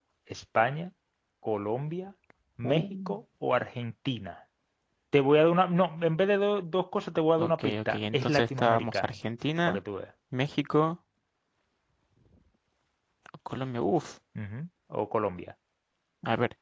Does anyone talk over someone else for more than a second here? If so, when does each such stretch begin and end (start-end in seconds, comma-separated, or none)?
7.4-9.1